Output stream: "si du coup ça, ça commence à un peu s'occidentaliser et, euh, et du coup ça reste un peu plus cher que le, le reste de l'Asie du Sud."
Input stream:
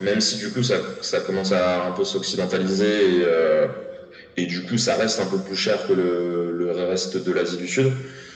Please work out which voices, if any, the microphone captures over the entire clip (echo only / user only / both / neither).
echo only